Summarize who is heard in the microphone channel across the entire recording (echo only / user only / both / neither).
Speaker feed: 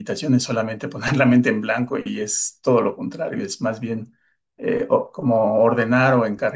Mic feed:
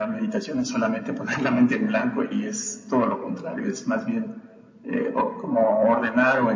echo only